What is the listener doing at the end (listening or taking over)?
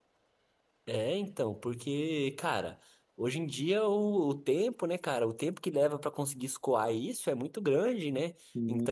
listening